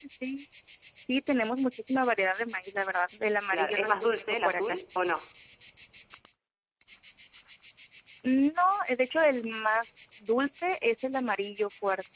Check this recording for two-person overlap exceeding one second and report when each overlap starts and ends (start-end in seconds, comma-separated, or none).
3.5-4.8